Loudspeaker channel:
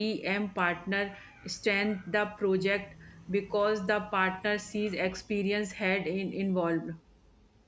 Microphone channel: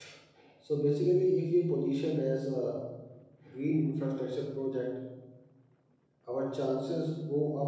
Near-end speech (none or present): present